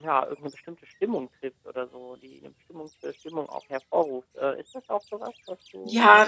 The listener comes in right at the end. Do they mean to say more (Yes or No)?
Yes